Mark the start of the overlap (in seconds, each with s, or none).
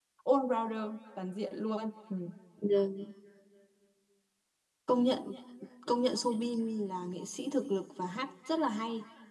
none